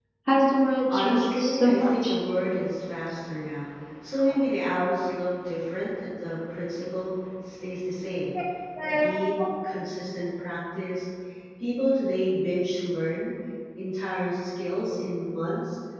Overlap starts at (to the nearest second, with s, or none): 1 s